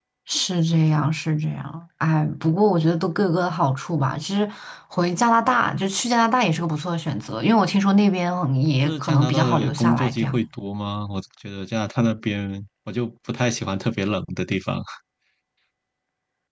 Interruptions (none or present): present